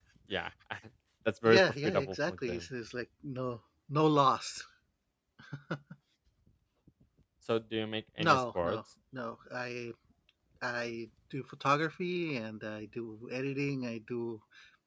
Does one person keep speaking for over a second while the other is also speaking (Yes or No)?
Yes